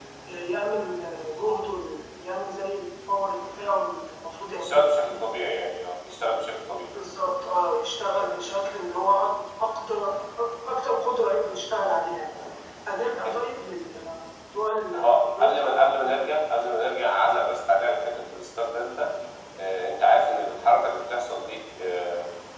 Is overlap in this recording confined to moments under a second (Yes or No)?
No